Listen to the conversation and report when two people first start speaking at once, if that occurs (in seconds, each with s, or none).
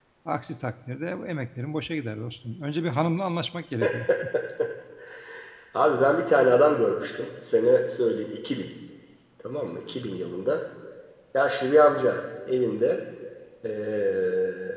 none